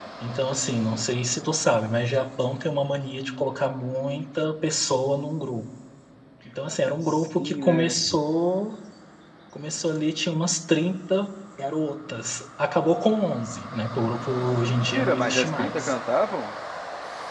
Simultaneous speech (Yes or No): Yes